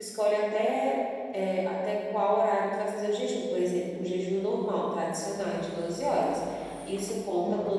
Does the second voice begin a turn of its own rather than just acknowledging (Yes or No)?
No